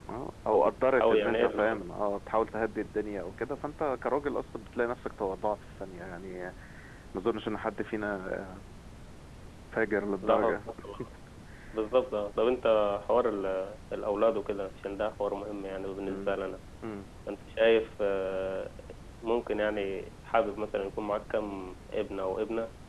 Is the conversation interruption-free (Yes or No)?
No